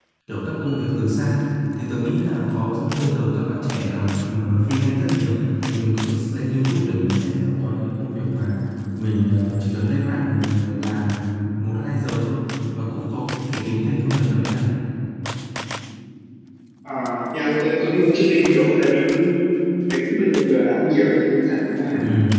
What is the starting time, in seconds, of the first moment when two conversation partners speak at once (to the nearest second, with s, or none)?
none